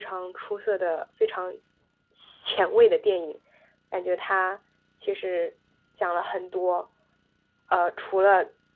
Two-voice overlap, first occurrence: none

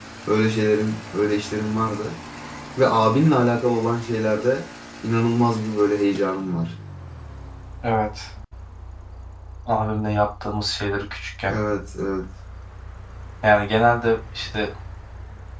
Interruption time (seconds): none

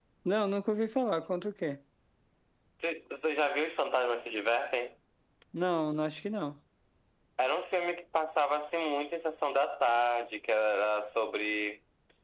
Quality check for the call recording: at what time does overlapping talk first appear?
none

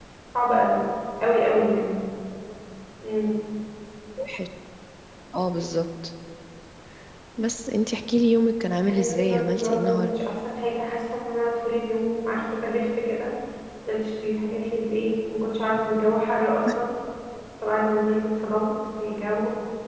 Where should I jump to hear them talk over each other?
9 s

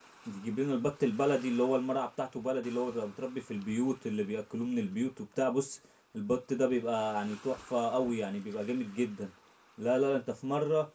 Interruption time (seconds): none

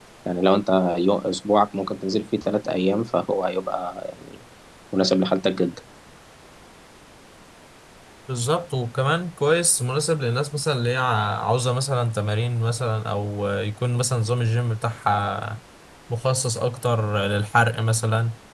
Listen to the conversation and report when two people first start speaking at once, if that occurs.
none

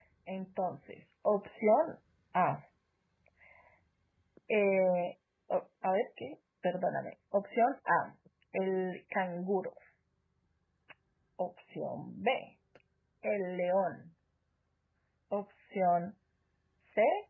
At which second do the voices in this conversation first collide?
none

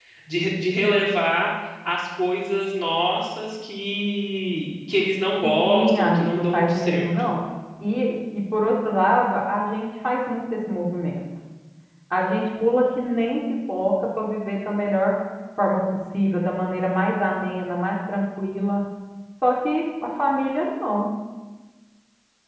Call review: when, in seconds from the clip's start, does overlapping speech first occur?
5 s

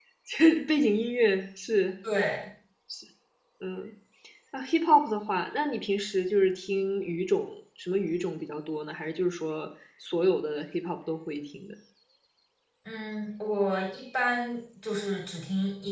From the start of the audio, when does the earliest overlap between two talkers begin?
none

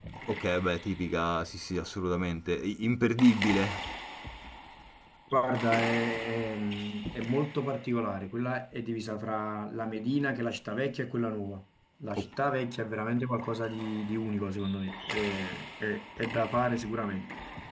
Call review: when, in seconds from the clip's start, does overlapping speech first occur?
none

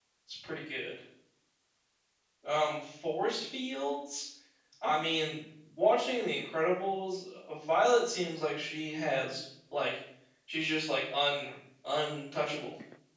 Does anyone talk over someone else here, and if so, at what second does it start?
none

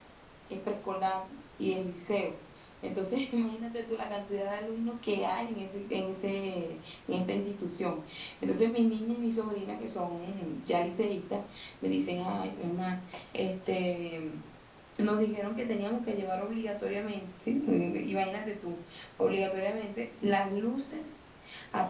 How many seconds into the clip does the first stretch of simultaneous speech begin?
none

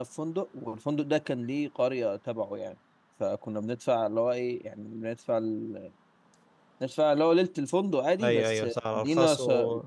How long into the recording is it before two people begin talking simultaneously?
8 s

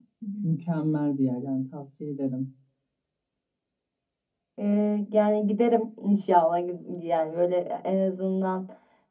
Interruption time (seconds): none

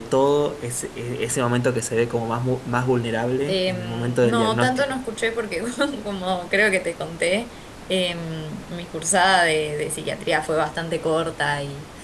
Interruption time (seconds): 3 s

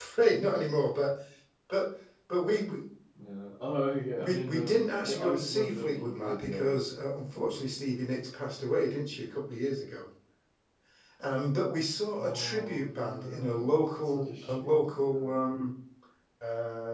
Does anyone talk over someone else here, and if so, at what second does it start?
4 s

